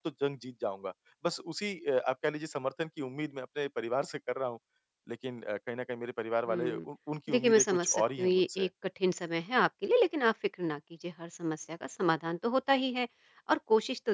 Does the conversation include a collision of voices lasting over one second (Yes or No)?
Yes